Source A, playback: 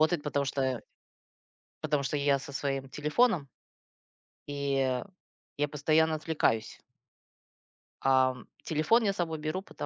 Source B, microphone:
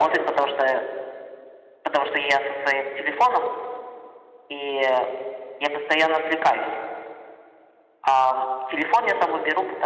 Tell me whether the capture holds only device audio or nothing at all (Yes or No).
Yes